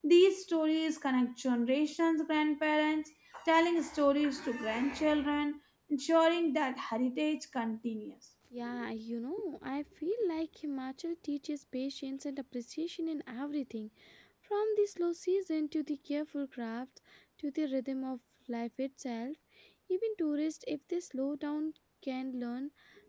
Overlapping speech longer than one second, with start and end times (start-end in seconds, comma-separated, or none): none